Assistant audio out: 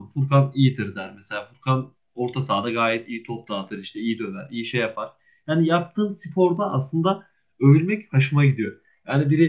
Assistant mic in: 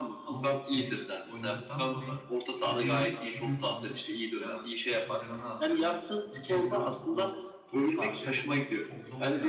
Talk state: both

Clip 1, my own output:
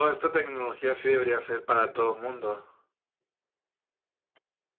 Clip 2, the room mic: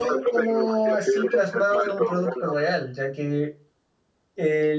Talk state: both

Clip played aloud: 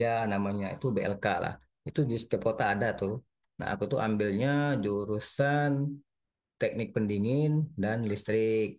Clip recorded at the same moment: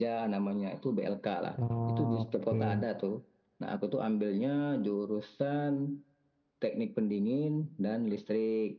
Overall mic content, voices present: both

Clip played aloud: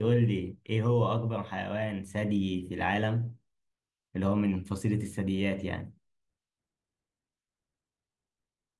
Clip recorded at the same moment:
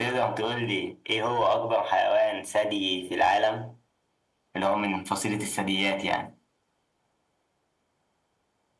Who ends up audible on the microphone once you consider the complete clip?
echo only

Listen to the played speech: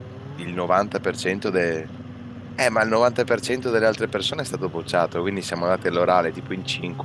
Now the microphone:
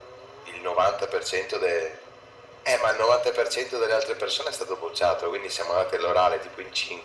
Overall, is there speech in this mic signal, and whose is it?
echo only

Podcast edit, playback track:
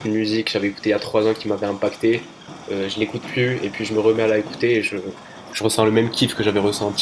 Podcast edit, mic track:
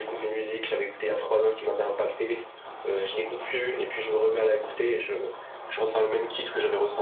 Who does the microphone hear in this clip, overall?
echo only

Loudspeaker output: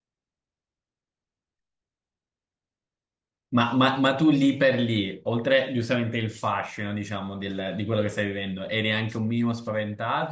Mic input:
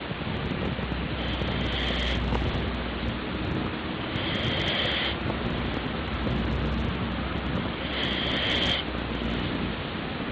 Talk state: neither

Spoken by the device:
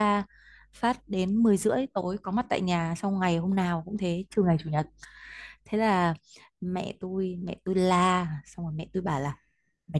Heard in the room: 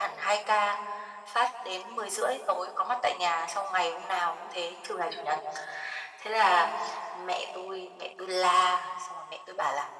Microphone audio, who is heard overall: echo only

